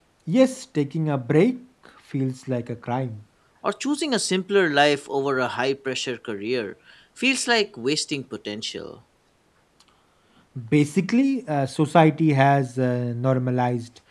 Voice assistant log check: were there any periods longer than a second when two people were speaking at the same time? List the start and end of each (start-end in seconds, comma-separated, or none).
none